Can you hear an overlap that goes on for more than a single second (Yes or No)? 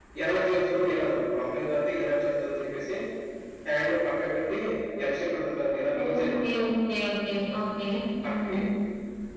No